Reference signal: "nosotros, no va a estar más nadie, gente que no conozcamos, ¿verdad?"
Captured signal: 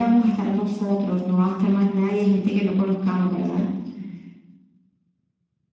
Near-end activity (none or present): none